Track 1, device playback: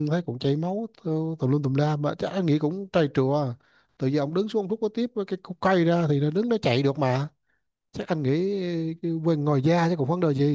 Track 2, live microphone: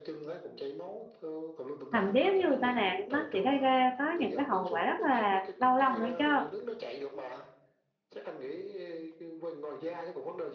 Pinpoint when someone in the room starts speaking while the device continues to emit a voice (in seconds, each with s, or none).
1.9 s